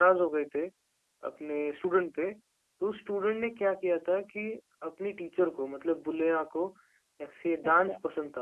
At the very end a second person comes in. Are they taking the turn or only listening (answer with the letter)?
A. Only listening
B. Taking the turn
A